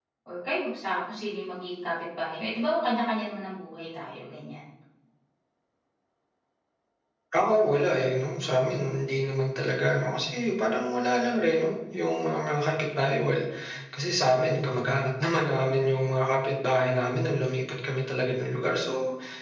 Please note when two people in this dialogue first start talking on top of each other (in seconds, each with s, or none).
none